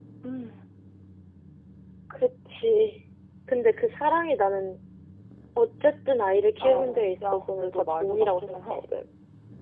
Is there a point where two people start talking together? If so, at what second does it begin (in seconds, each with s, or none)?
6.6 s